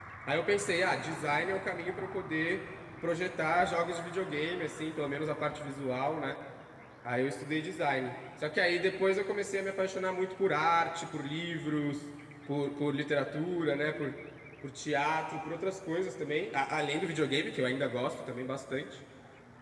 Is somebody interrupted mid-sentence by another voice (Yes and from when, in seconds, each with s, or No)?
No